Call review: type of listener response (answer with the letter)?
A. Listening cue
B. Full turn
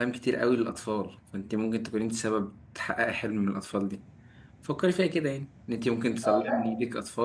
A